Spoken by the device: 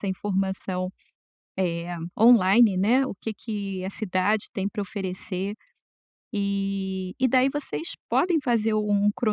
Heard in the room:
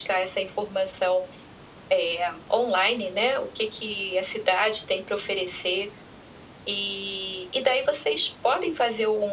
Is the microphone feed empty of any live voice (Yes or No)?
Yes